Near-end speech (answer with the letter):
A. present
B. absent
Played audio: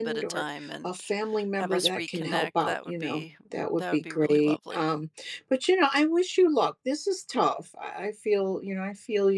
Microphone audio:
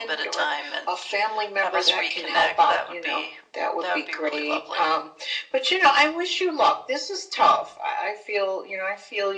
B